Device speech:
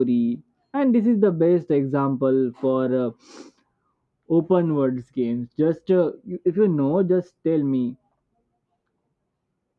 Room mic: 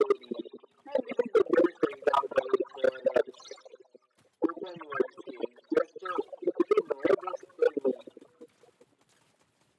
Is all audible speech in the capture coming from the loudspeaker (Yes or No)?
Yes